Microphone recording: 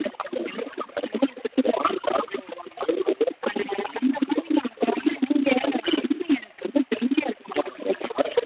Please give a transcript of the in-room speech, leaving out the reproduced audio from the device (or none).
none